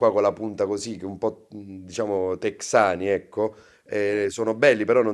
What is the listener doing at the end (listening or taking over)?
listening